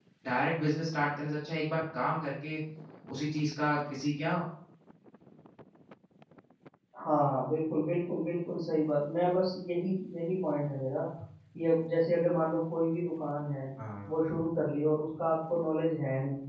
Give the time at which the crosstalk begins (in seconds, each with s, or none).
none